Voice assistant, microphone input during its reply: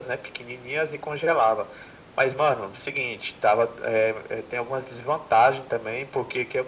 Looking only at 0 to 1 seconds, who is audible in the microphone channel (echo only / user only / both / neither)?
echo only